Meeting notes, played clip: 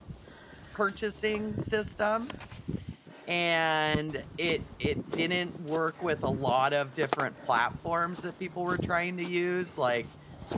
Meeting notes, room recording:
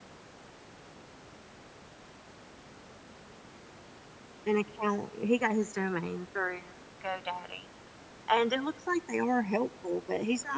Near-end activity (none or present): present